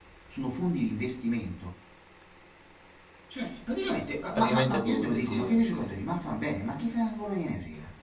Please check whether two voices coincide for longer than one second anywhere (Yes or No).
Yes